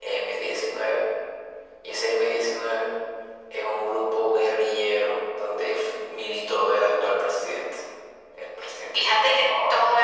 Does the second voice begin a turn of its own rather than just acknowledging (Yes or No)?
Yes